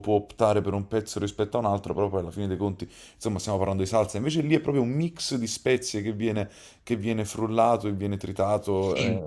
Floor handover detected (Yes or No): No